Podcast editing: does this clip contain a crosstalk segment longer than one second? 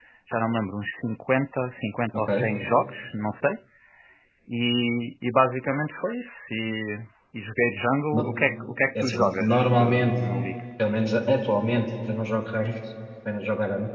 Yes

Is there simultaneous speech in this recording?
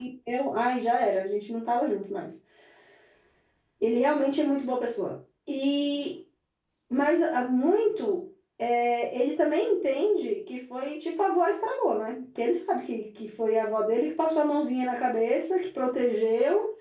No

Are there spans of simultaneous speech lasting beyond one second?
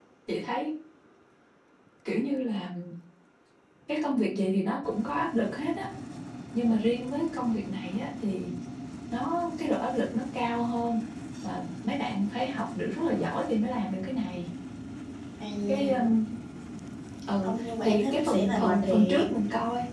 Yes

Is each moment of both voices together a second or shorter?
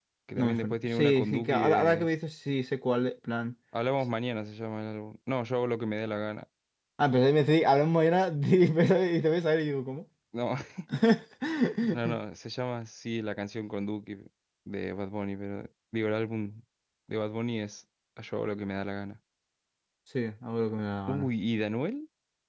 No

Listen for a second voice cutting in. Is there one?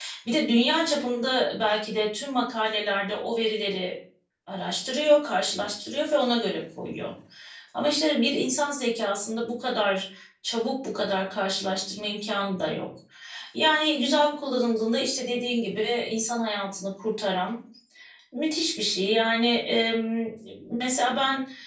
No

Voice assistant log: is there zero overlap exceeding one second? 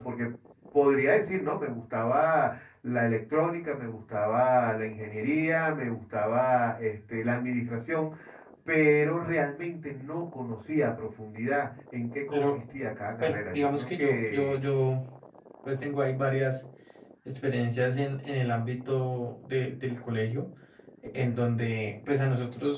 No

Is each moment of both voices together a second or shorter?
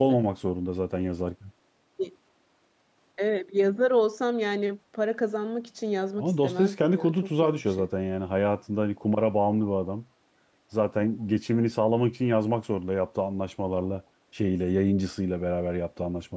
No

